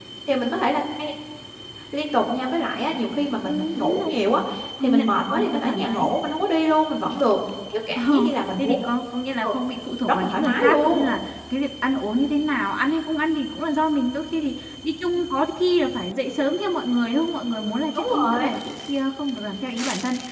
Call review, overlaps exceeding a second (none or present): present